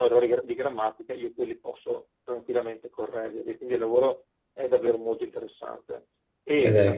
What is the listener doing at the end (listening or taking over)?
listening